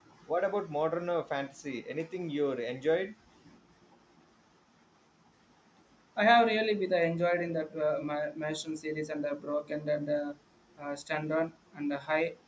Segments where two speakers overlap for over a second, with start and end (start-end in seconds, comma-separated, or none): none